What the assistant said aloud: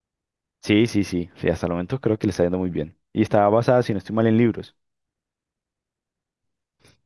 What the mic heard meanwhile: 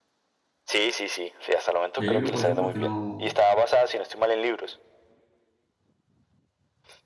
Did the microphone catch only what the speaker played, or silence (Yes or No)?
No